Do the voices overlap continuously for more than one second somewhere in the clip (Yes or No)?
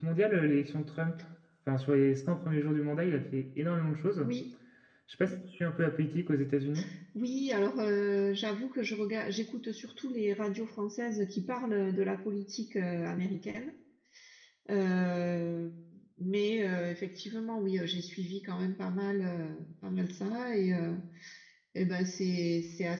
No